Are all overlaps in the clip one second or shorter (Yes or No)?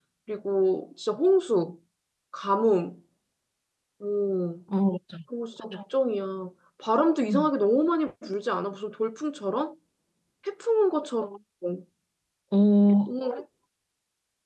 Yes